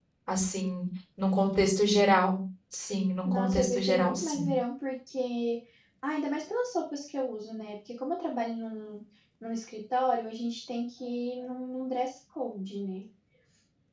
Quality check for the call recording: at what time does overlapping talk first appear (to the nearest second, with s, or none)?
3 s